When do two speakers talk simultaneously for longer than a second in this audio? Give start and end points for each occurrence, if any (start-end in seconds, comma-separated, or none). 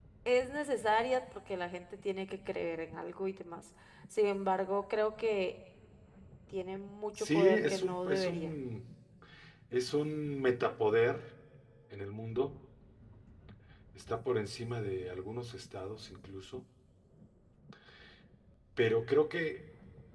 7.2-8.5